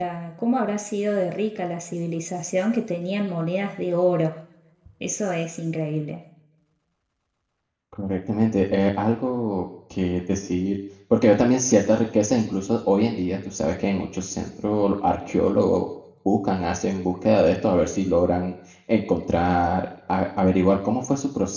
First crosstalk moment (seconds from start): none

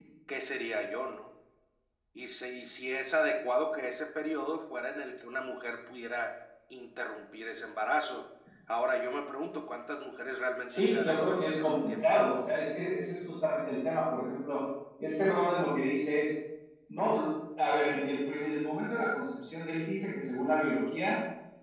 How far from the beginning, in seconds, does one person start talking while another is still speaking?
11 s

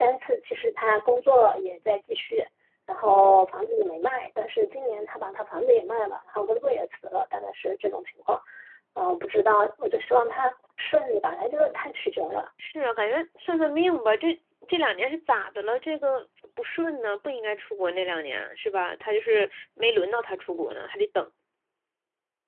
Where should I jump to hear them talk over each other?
none

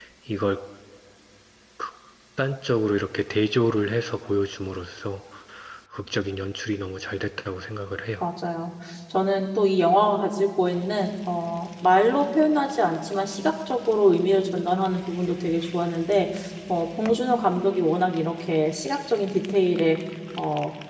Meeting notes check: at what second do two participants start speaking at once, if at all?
none

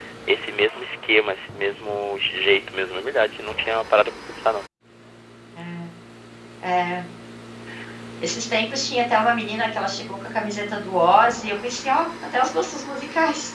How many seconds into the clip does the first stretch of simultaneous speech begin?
none

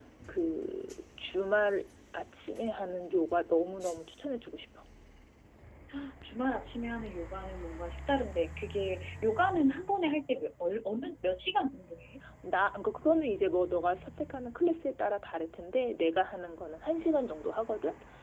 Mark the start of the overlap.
none

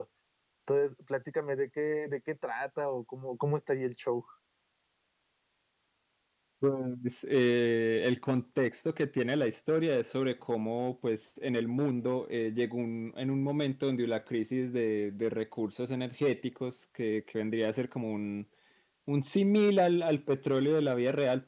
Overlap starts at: none

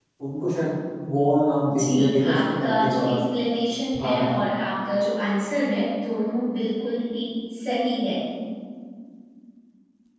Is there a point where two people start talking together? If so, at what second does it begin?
2 s

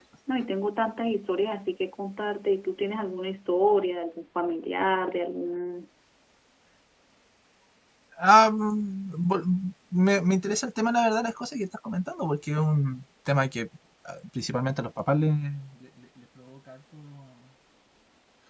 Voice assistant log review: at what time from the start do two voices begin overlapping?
none

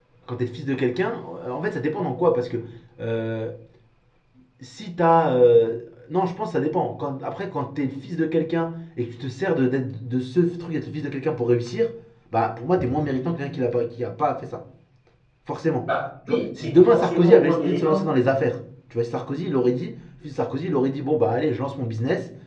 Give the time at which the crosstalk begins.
16 s

